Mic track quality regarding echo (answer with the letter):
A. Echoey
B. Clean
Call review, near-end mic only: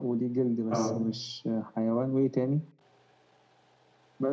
A